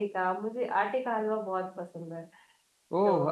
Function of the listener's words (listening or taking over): taking over